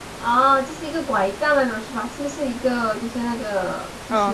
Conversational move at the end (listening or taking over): taking over